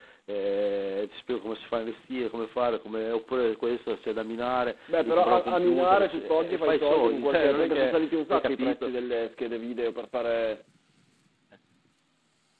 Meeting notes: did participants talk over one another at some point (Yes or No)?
Yes